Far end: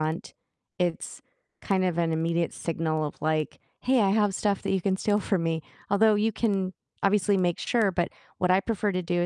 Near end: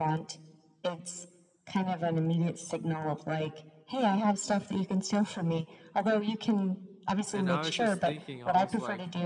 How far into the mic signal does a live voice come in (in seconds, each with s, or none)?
7.3 s